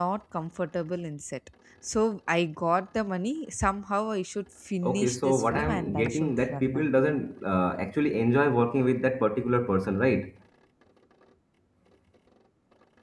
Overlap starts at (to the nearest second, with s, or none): 5 s